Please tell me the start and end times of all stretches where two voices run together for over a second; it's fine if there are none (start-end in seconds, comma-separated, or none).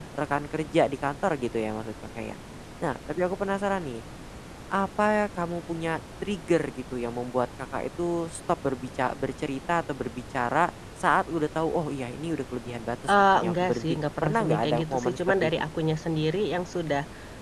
13.1-15.5